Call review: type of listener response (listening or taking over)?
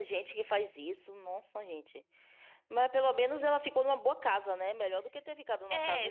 taking over